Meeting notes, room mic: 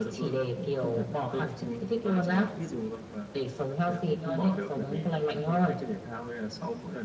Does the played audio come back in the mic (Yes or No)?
Yes